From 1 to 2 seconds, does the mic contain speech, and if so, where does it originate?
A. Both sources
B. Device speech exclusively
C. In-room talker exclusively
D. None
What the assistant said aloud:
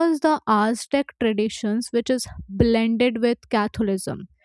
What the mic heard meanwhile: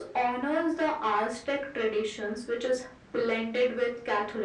B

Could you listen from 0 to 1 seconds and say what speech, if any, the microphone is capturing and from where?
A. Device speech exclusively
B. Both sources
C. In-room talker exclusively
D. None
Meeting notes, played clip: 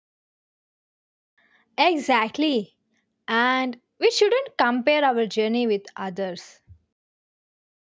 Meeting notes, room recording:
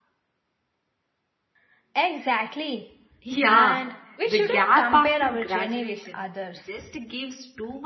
D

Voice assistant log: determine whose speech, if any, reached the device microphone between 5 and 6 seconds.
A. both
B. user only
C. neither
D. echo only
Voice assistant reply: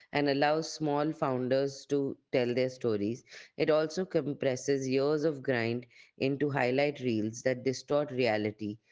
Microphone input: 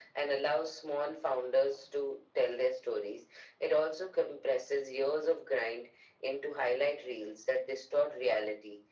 D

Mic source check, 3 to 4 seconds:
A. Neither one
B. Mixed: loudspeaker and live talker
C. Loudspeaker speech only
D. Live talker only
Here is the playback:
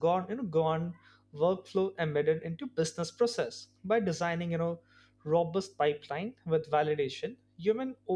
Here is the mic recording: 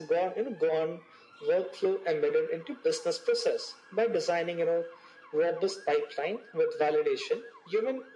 C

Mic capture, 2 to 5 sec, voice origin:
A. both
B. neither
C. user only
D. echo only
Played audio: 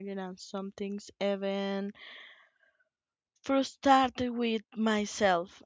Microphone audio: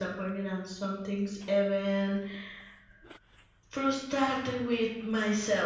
D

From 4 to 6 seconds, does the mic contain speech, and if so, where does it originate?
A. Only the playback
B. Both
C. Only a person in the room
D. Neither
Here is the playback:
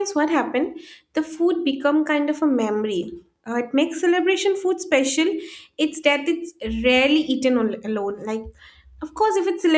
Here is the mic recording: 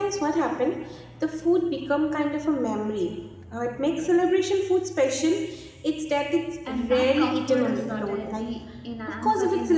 A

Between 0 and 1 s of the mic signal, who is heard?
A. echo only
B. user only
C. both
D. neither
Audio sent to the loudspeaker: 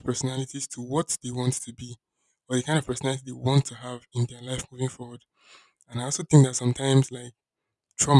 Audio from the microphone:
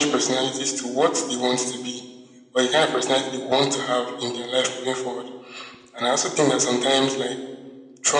A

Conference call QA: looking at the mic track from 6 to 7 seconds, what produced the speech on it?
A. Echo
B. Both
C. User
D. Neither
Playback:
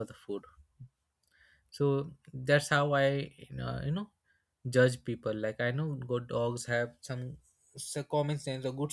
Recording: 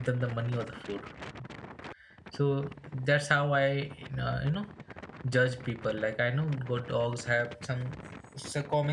A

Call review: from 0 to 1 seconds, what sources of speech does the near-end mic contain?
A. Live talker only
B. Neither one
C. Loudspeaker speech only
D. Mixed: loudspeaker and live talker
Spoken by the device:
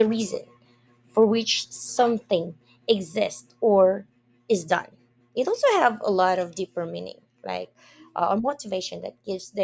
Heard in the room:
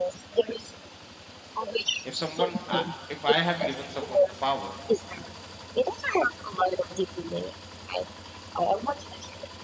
C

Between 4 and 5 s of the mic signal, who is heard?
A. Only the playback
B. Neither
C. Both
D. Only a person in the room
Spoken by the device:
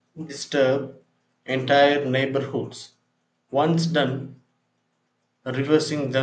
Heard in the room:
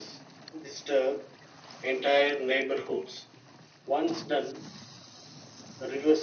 A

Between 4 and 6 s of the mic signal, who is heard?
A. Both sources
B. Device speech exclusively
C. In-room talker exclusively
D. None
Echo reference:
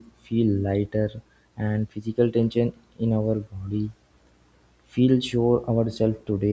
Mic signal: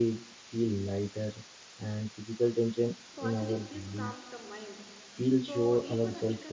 A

